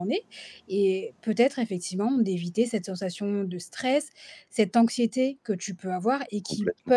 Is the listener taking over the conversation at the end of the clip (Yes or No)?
No